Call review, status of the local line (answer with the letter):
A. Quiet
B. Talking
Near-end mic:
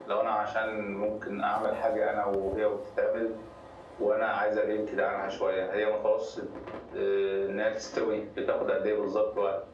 A